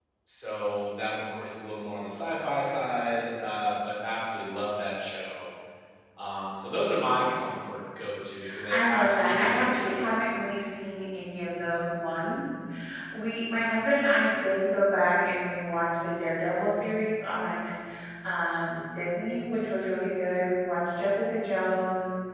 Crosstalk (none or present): present